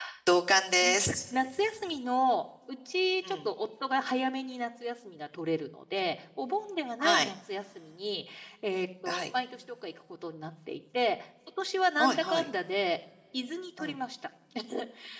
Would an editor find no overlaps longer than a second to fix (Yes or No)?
Yes